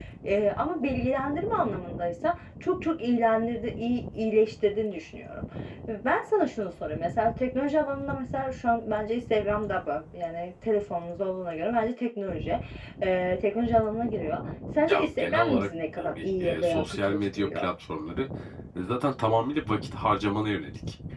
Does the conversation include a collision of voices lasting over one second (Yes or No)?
Yes